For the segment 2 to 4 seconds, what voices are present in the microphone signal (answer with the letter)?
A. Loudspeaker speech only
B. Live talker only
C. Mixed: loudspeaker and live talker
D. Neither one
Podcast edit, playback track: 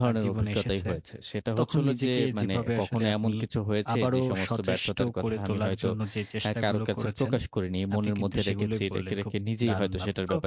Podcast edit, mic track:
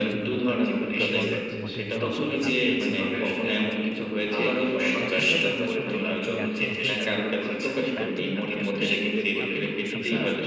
C